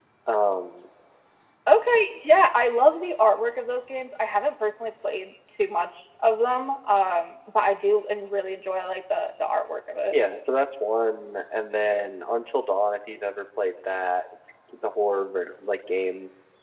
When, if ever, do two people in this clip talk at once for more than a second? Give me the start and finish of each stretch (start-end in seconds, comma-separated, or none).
none